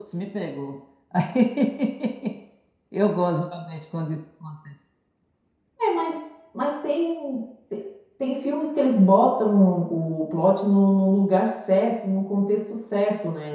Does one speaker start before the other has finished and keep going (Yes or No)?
No